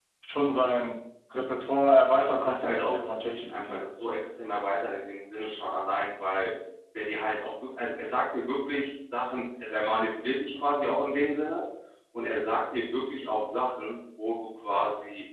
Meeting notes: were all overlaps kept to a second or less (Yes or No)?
No